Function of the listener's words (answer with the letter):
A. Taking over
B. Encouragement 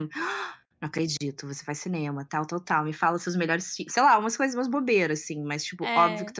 B